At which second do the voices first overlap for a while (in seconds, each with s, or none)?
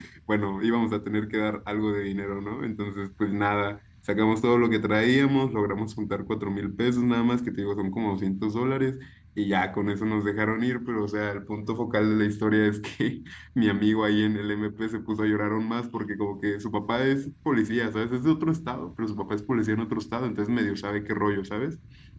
none